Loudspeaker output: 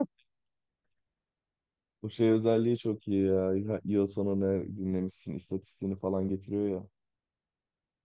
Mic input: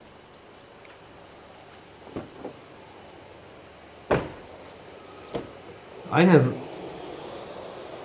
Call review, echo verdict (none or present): none